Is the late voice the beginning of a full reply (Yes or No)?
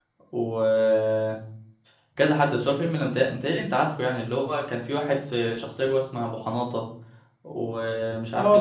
Yes